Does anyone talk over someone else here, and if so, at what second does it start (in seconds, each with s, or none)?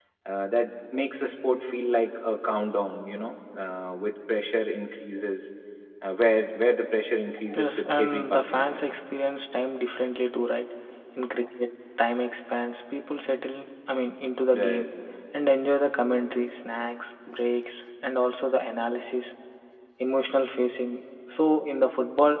7.5 s